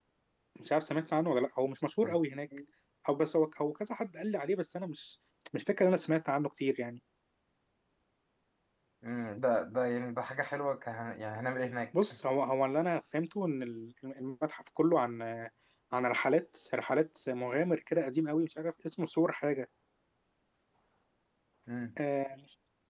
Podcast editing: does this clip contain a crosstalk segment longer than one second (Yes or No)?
No